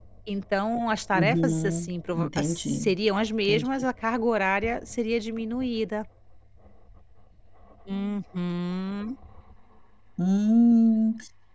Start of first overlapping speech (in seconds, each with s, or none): 1.1 s